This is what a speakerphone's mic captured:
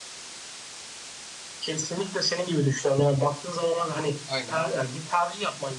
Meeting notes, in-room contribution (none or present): present